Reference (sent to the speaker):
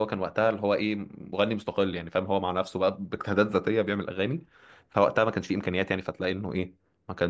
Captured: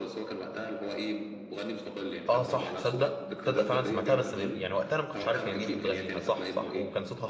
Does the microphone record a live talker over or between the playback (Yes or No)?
Yes